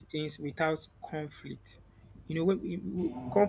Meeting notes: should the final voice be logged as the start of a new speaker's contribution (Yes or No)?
No